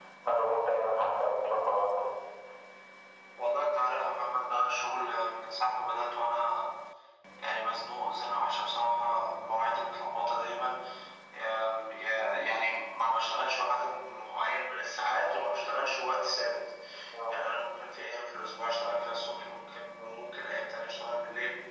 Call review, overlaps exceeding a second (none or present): none